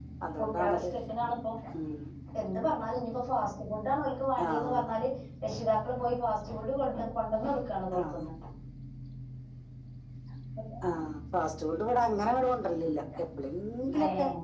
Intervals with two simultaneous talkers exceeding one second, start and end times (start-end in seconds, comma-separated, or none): none